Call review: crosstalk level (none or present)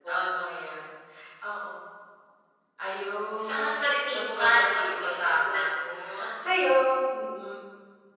present